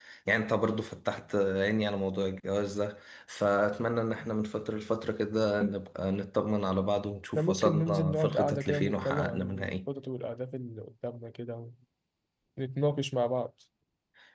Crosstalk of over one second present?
Yes, from 7.4 s

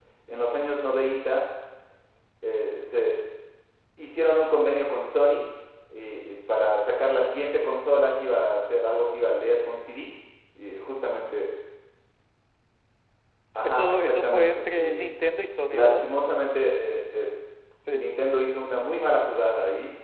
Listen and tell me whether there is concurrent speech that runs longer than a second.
Yes, from 13.6 s

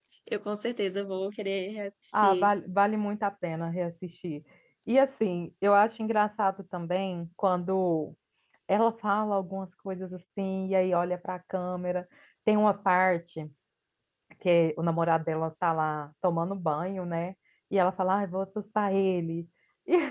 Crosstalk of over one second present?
No

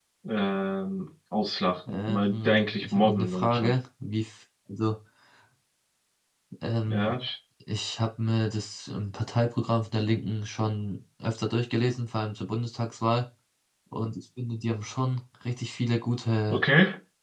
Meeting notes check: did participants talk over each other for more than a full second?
Yes, from 1.9 s

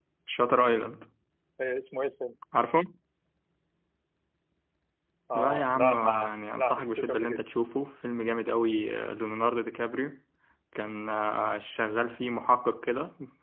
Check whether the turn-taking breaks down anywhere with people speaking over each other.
Yes, from 5.3 s

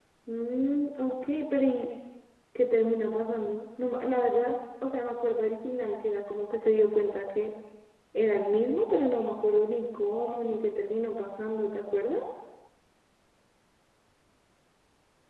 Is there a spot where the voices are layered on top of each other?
No

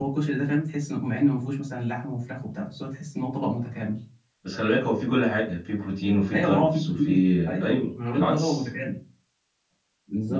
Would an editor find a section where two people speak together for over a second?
Yes, from 6.3 s

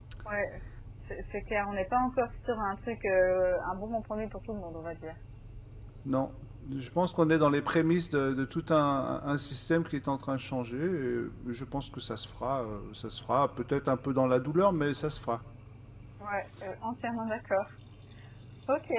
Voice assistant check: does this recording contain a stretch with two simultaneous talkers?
No

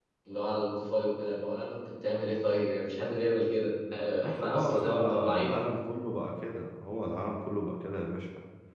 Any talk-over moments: Yes, from 4.2 s

